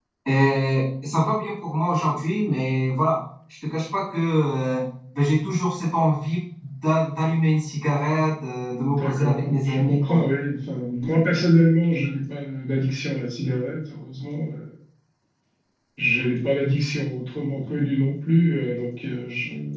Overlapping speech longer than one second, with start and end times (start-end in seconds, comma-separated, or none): 8.9-10.2